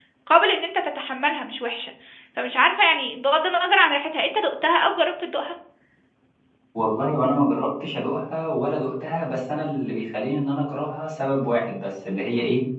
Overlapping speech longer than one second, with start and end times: none

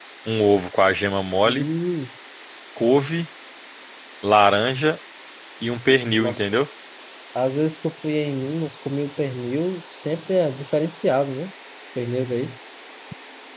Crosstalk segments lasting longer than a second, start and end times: none

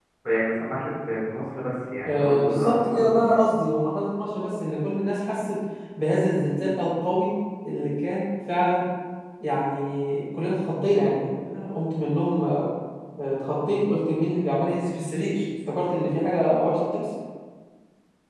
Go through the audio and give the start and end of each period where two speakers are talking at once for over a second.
2.1-3.4

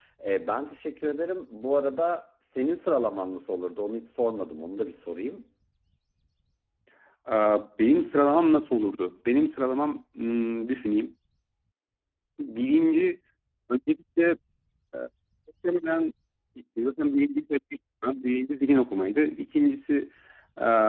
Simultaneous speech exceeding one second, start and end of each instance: none

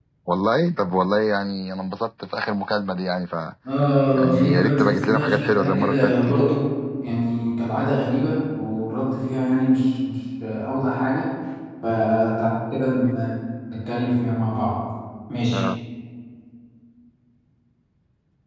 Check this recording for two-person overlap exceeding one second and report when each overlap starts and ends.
4.1-6.4

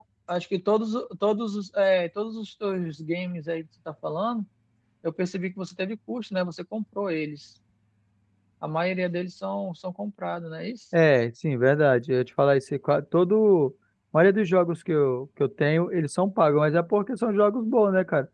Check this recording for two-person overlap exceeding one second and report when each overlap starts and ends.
none

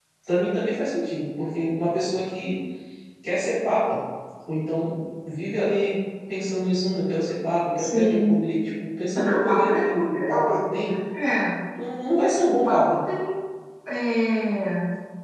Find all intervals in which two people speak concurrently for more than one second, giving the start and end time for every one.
9.2-10.9

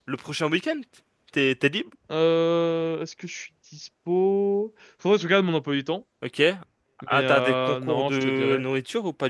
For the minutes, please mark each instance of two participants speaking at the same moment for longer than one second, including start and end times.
7.1-8.6

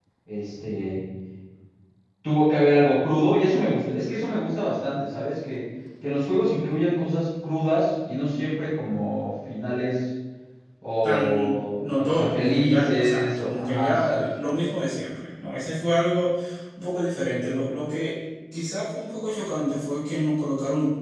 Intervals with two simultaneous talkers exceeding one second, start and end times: 11.0-14.2

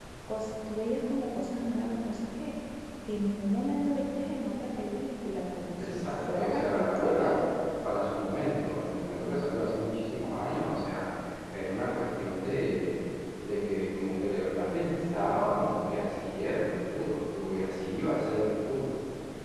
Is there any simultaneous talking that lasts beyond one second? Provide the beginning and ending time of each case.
5.8-7.4

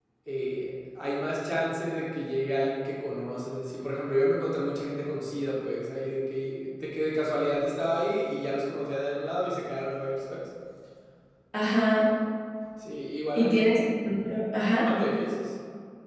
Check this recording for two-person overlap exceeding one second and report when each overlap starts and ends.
none

